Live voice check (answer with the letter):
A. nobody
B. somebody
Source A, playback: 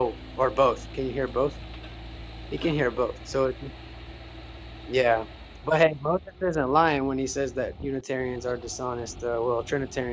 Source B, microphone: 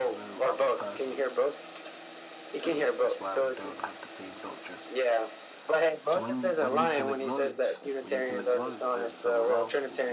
B